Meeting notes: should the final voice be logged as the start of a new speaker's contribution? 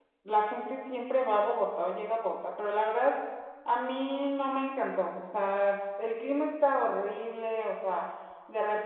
No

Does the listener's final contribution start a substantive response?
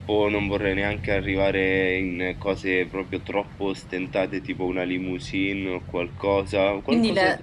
Yes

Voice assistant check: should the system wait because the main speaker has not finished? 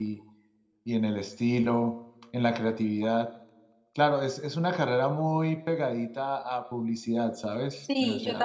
No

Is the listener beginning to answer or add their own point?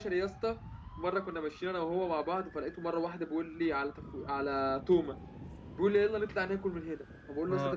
No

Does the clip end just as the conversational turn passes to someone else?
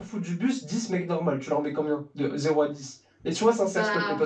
No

